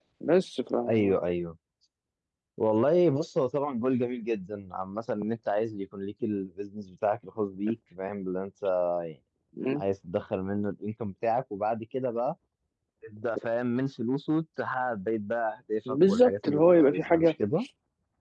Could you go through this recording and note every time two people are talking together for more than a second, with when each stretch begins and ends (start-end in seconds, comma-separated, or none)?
15.9-17.3